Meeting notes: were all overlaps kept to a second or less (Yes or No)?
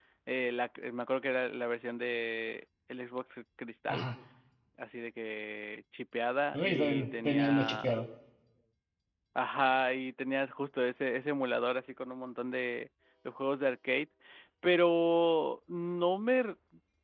No